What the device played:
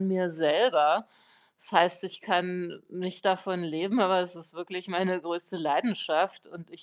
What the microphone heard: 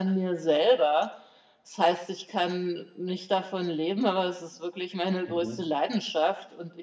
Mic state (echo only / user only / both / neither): both